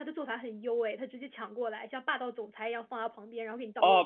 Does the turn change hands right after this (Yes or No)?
Yes